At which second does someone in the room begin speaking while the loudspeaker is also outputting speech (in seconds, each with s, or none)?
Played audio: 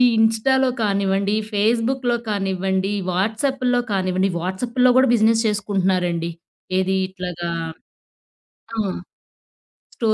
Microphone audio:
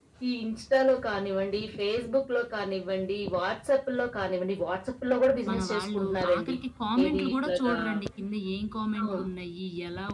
5.5 s